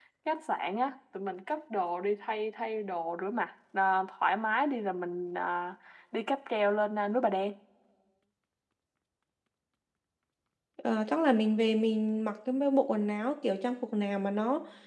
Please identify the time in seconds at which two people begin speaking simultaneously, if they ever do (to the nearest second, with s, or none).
none